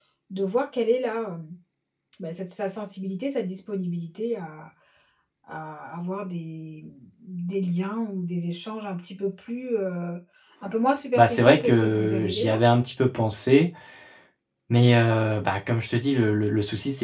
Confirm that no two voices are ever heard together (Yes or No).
No